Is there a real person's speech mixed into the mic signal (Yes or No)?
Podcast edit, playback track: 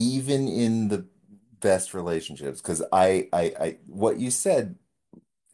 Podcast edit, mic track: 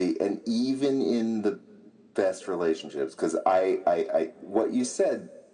No